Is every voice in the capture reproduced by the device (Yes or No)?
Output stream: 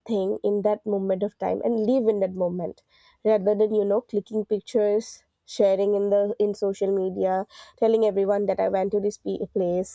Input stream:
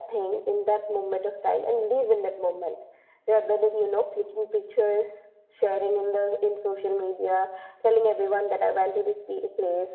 Yes